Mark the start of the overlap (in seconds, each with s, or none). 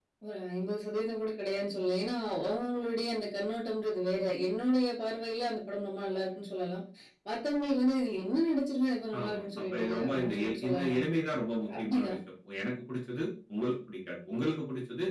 9.2 s